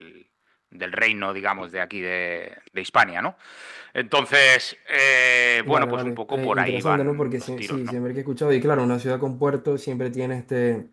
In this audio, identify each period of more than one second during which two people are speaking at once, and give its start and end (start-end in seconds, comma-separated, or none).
5.6-7.8